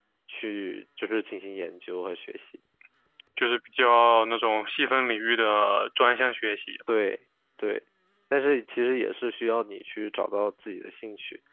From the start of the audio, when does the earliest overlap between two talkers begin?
none

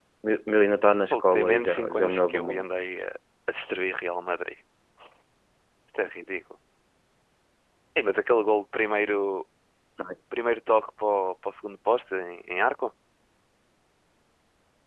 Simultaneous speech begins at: 1.1 s

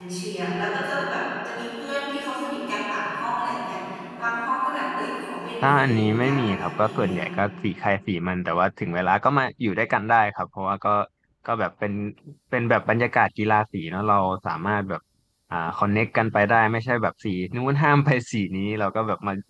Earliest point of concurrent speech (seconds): 5.6 s

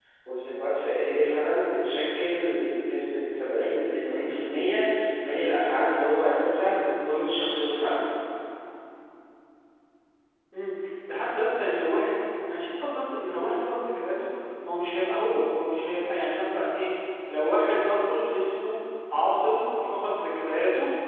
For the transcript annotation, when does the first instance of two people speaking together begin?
none

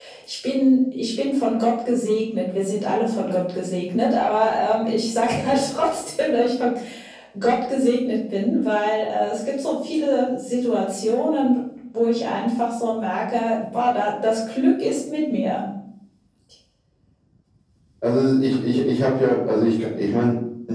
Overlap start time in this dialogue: none

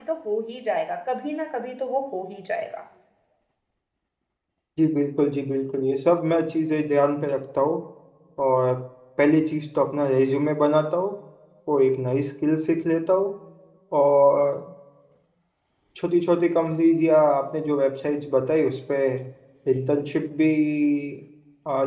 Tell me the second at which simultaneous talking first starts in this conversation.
none

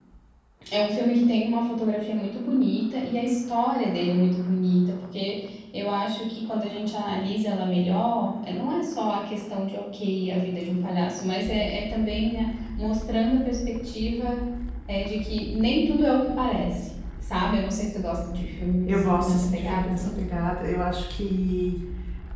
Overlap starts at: 18.9 s

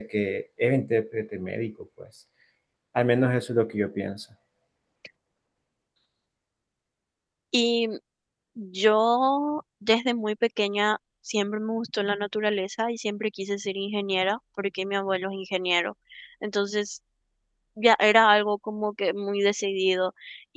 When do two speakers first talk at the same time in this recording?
none

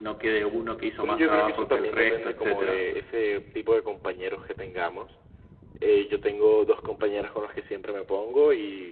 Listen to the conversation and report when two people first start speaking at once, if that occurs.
1.0 s

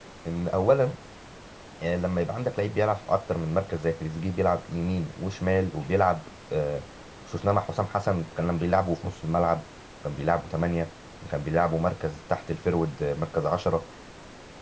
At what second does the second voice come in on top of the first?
none

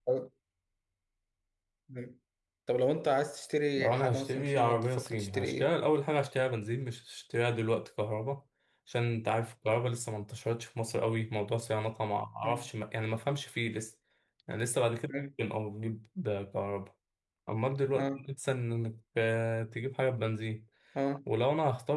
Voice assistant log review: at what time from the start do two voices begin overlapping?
3.8 s

